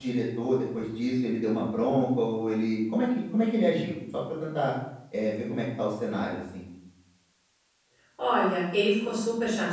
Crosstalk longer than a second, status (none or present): none